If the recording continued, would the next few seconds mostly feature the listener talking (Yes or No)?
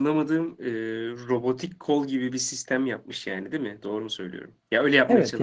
Yes